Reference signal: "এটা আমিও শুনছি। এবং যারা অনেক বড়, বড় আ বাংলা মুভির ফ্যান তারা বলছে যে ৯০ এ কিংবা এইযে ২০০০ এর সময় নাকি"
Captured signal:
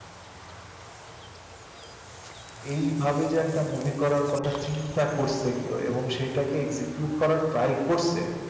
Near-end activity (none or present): present